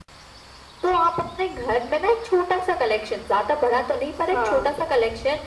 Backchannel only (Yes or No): Yes